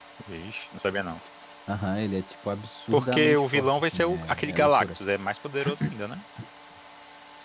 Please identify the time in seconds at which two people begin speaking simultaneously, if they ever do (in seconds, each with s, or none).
2.9 s